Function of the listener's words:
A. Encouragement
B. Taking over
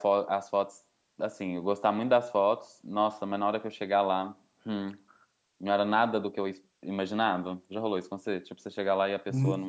B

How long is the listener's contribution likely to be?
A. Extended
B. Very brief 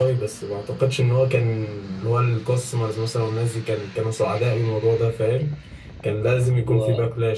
B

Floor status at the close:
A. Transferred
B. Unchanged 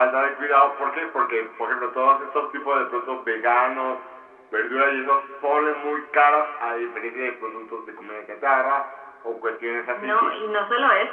A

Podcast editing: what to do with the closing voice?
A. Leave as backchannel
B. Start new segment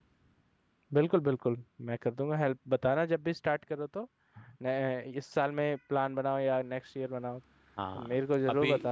B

